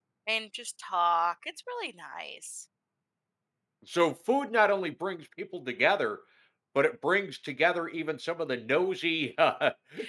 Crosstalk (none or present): none